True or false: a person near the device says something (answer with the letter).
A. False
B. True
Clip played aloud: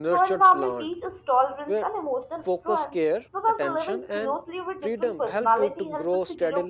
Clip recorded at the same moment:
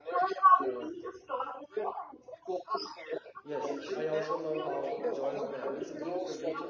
B